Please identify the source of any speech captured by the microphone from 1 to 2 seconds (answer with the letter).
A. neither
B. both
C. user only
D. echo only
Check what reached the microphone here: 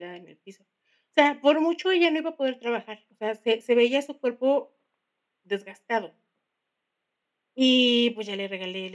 D